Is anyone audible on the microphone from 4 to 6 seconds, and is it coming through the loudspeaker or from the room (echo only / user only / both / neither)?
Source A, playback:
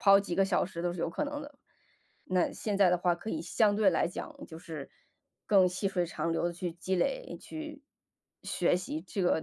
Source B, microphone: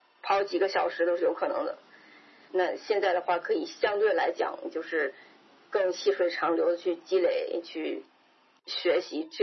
echo only